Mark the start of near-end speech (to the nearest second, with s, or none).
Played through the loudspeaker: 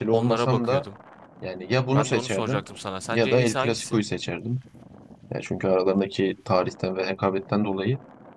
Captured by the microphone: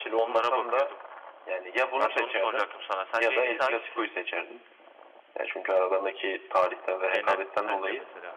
7 s